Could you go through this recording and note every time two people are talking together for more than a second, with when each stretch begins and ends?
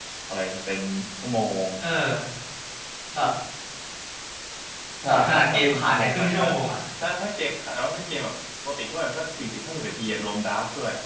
5.1-6.4

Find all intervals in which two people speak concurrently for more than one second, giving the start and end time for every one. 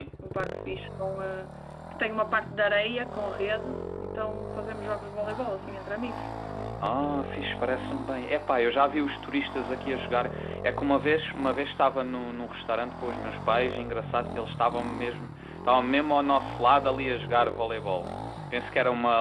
none

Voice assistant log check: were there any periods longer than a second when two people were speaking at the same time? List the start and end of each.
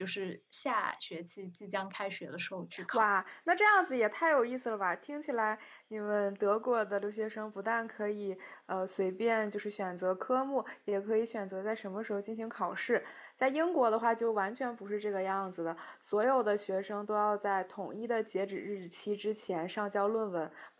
none

